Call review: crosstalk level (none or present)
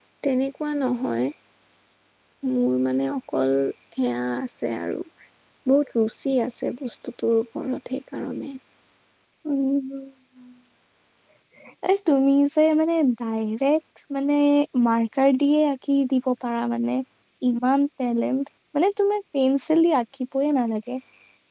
none